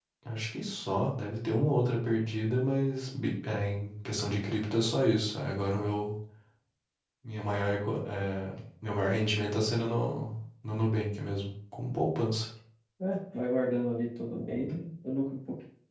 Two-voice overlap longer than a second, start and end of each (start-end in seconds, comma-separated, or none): none